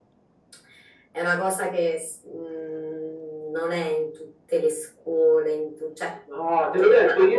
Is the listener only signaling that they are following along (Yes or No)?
No